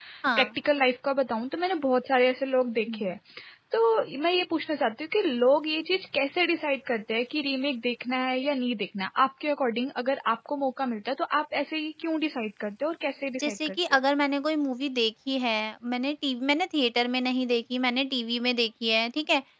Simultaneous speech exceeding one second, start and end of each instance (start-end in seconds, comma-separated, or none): none